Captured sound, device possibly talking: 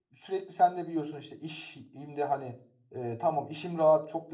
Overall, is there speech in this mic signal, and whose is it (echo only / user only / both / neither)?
user only